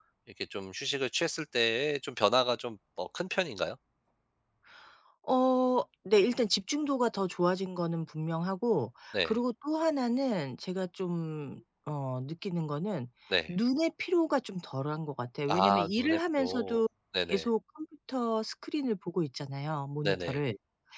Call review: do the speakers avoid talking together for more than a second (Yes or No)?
No